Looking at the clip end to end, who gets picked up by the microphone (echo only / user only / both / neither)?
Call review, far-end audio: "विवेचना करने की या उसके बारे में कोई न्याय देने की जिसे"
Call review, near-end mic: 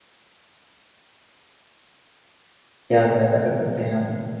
user only